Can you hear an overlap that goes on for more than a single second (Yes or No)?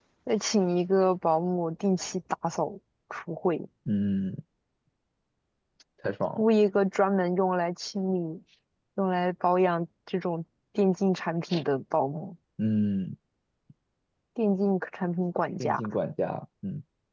No